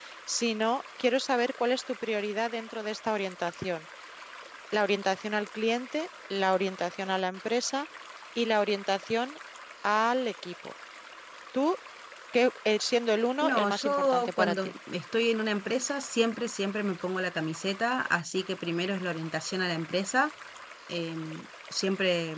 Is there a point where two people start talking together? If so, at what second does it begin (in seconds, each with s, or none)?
13.4 s